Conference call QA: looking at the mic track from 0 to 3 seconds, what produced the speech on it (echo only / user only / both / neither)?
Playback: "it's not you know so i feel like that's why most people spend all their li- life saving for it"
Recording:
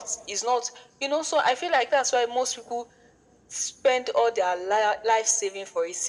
echo only